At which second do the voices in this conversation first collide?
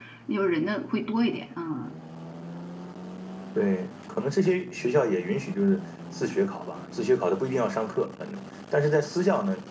none

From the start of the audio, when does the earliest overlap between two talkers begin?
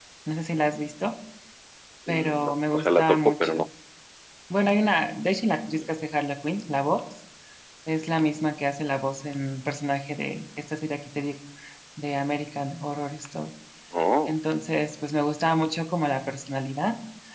2.1 s

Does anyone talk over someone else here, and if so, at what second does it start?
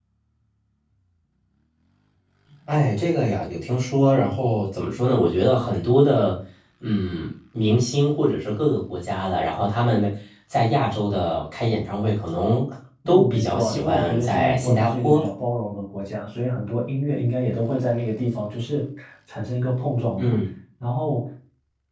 13.1 s

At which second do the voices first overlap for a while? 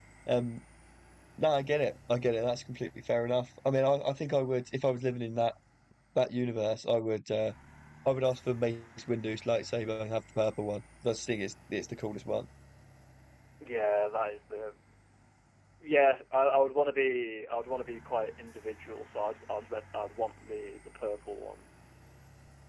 none

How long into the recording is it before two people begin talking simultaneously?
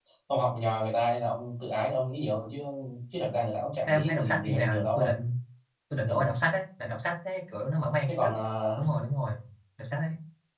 3.9 s

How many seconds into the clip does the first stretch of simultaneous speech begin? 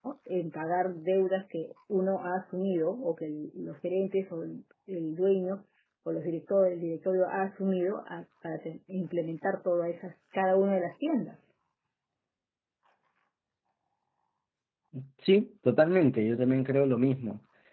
none

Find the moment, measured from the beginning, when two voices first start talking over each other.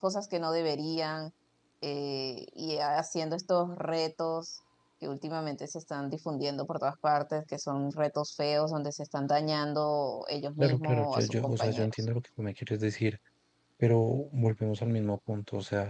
10.6 s

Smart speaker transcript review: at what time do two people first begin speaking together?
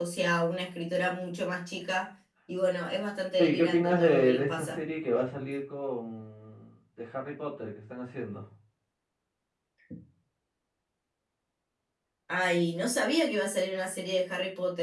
3.4 s

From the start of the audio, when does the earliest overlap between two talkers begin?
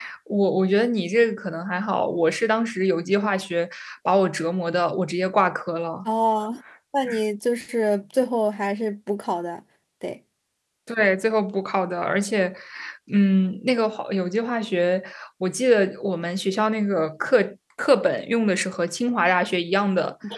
none

